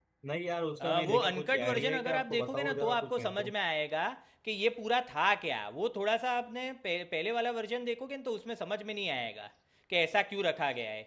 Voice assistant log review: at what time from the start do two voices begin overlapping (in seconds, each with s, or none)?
0.8 s